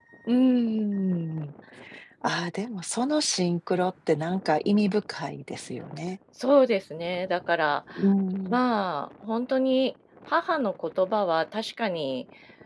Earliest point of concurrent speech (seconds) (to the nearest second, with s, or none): none